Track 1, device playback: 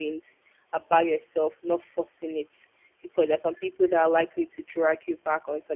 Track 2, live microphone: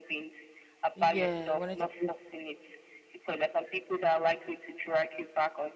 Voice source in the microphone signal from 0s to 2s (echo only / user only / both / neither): both